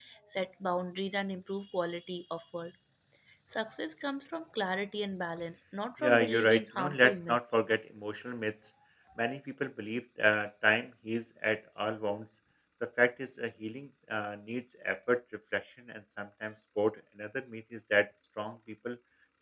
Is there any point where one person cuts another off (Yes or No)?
Yes